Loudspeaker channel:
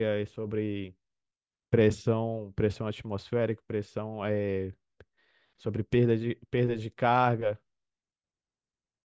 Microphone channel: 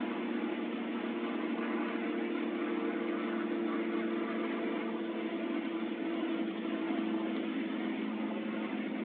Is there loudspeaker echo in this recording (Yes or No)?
No